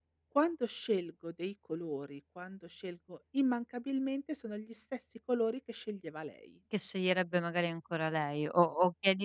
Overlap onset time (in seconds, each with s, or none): none